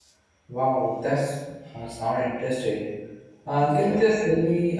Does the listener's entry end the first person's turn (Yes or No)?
No